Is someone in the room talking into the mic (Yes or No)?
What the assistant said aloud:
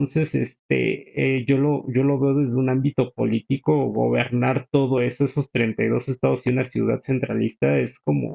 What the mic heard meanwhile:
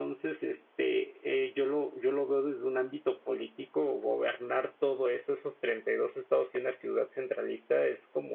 No